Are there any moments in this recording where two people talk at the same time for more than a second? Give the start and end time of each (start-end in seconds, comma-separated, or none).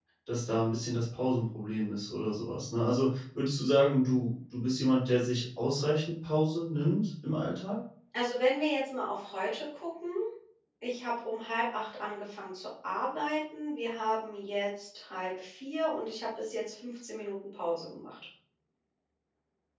none